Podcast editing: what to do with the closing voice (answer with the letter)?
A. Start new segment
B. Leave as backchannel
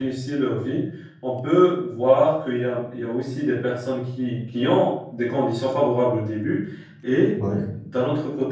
B